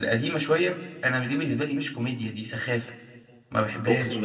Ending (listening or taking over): taking over